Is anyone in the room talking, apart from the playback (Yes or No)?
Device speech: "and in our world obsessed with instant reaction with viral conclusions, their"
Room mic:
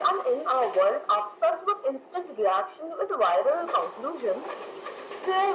No